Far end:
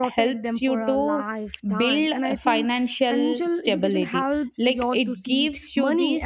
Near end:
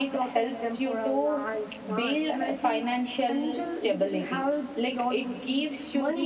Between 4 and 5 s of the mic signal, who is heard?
echo only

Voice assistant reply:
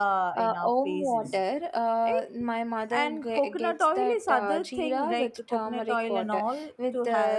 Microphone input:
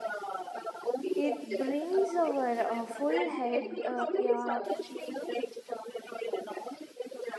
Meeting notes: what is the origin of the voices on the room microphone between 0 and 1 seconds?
echo only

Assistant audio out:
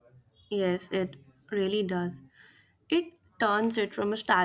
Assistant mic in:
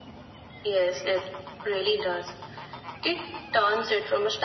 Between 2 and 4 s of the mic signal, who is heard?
echo only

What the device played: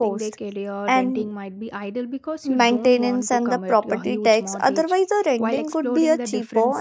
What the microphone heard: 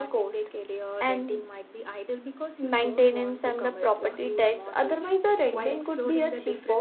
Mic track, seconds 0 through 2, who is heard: echo only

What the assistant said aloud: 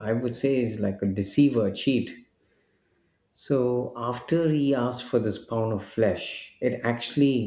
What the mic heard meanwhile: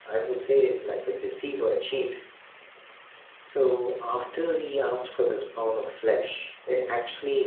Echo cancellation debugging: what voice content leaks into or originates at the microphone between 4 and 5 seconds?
echo only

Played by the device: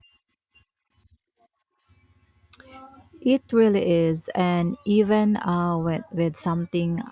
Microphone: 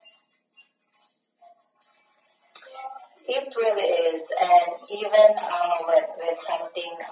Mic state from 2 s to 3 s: neither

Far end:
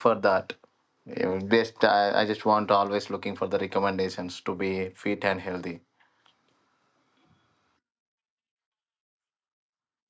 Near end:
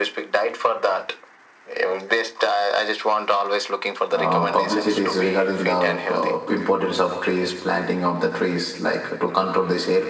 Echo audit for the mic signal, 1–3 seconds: echo only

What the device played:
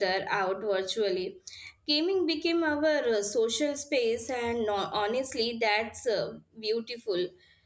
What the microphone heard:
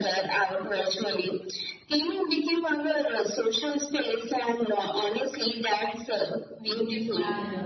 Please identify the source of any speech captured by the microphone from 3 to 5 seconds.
echo only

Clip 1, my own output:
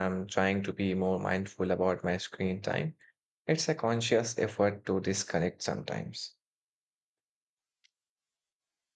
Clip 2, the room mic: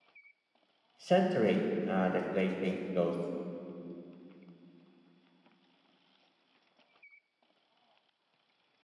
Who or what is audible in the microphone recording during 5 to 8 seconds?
neither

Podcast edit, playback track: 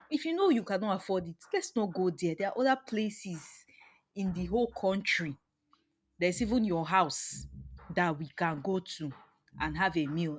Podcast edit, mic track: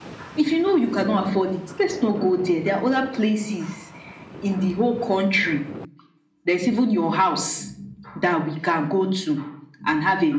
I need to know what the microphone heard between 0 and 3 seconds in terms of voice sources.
echo only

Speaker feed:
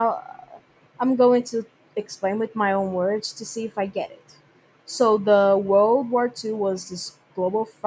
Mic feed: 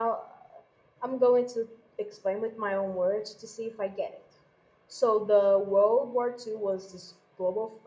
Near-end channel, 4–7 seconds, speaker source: echo only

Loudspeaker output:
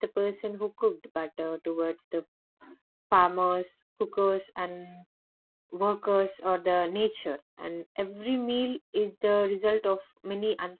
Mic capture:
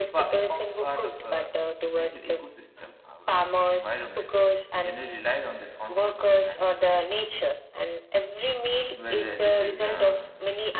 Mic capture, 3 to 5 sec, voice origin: both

